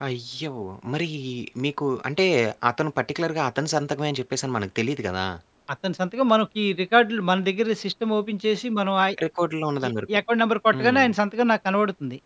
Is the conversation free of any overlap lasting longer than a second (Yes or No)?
Yes